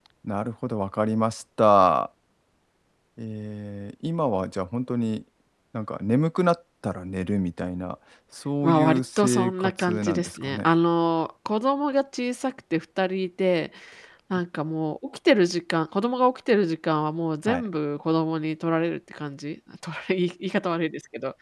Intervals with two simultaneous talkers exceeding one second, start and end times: 8.6-10.7

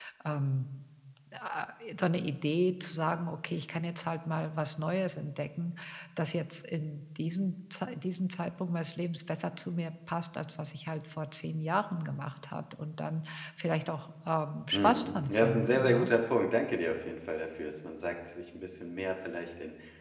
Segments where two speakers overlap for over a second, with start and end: 14.7-16.1

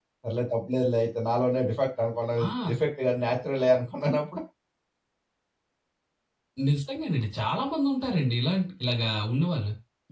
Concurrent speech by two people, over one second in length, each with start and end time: none

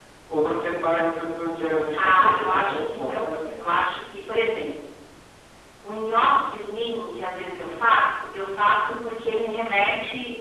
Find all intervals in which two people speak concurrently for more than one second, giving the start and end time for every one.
1.9-3.6

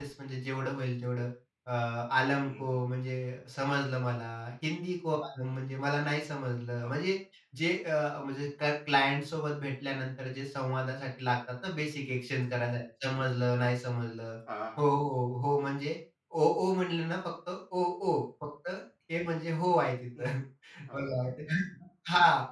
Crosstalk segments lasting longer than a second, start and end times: none

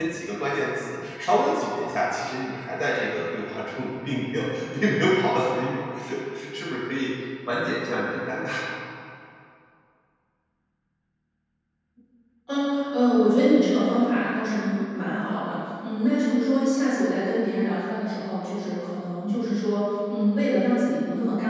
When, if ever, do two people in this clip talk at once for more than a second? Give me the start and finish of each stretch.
none

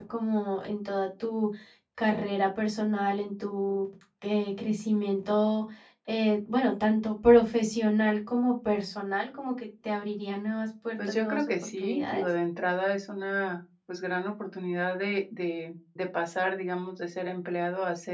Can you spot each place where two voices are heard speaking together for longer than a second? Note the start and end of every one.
11.0-12.2

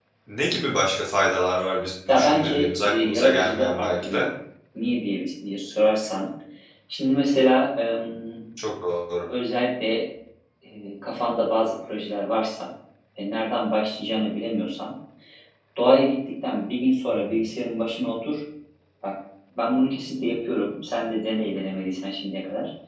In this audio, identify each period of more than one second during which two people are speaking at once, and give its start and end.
2.1-4.3

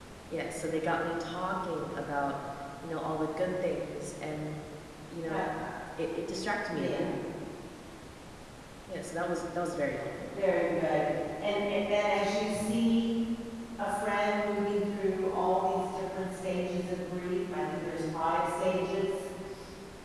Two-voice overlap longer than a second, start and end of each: none

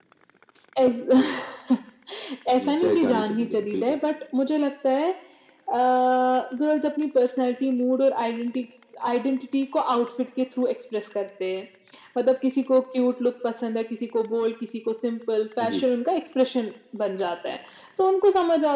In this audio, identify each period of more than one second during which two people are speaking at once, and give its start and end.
2.6-4.0

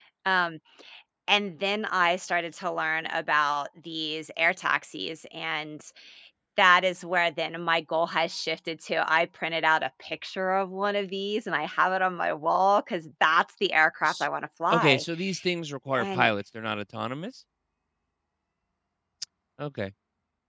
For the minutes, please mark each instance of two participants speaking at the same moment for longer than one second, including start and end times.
none

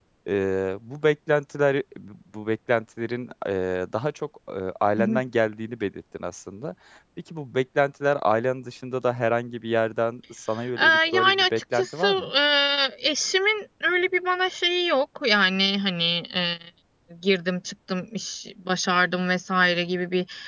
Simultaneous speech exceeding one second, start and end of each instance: 10.8-12.3

